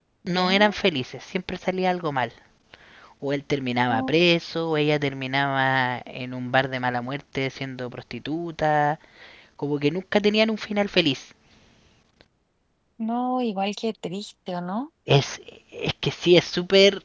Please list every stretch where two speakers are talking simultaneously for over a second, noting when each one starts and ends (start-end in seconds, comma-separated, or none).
none